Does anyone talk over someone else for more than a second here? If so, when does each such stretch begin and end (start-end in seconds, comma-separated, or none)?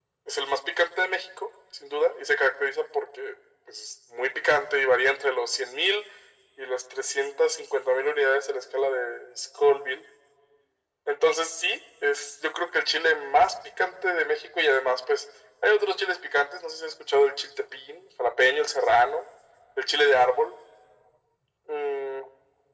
none